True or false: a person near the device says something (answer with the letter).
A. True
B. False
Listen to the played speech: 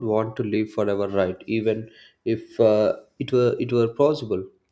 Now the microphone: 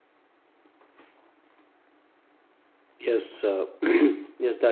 A